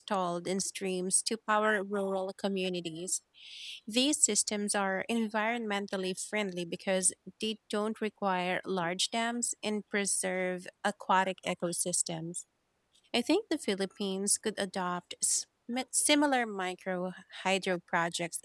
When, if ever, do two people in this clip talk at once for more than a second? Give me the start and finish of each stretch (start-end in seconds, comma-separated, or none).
none